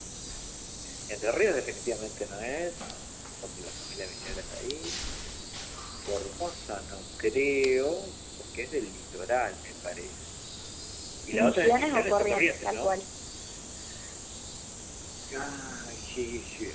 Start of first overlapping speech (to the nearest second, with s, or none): 11 s